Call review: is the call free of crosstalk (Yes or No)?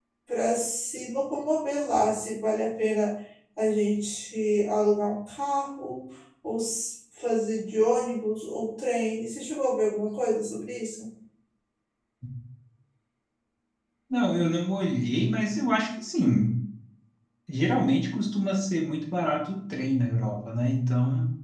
Yes